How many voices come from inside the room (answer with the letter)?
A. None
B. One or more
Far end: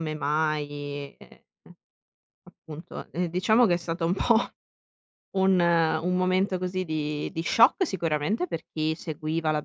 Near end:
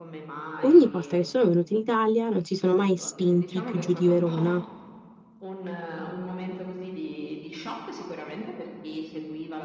B